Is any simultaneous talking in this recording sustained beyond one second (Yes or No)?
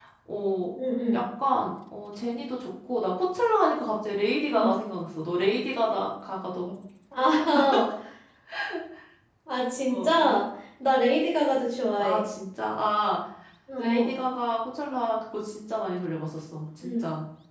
No